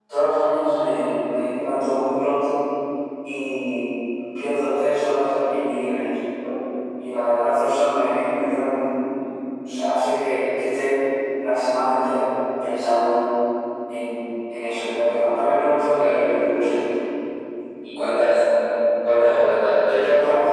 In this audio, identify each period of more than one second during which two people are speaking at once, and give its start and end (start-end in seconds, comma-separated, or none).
none